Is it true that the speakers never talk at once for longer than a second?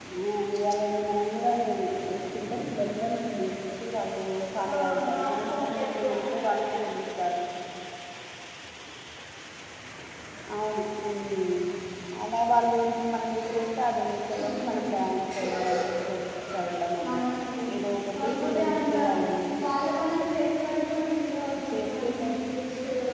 No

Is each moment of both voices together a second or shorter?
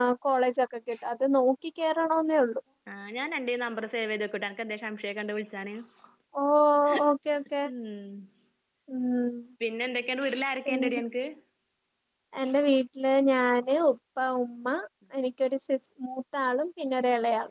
Yes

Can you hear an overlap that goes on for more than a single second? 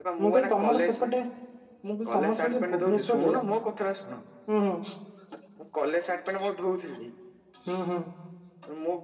Yes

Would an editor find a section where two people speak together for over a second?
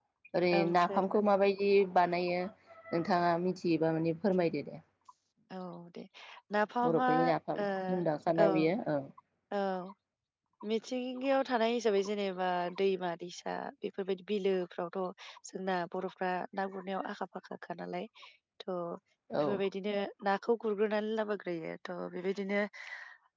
No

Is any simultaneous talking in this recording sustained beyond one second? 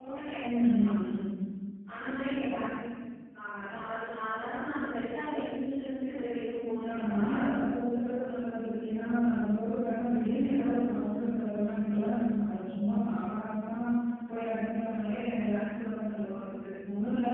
No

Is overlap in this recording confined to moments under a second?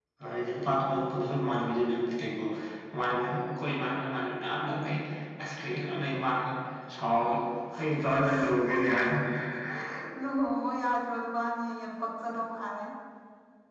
Yes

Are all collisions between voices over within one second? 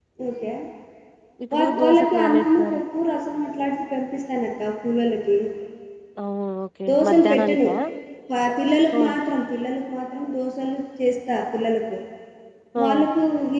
No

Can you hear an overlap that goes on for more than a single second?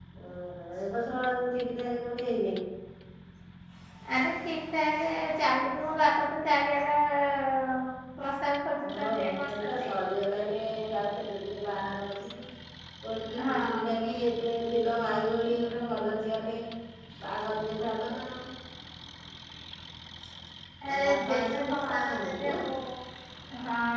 Yes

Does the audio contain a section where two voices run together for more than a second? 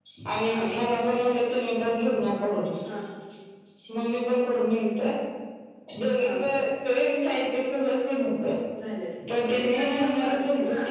Yes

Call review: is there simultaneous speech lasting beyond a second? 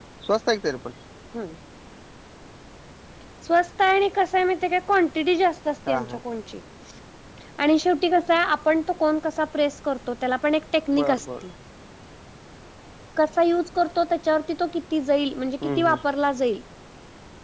No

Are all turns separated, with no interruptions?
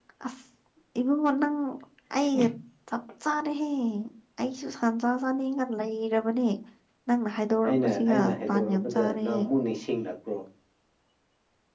No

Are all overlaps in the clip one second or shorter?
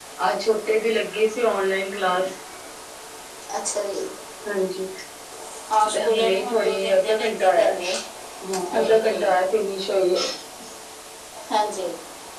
No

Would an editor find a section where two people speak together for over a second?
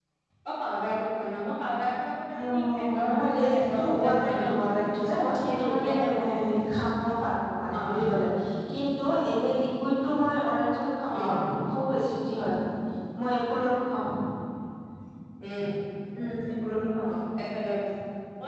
Yes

